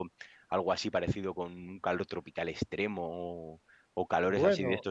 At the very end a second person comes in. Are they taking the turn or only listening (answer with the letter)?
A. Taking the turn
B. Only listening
B